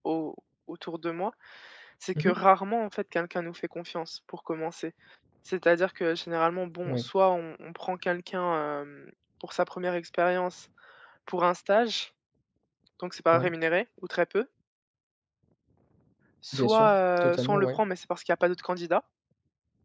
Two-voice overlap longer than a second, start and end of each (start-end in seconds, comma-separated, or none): 16.5-17.8